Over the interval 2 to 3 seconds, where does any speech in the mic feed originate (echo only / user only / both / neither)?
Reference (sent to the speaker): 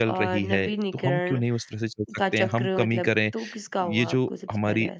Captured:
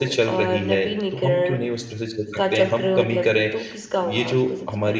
echo only